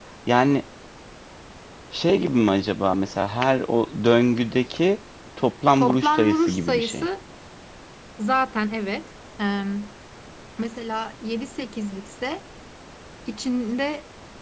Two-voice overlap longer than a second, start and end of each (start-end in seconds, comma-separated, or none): 5.8-7.1